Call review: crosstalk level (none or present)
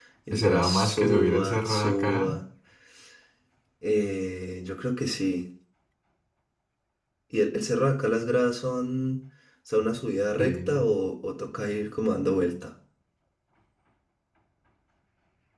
present